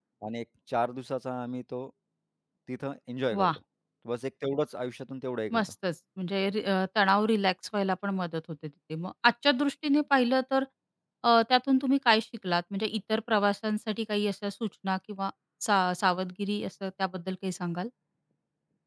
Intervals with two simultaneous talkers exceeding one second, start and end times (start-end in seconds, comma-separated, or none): none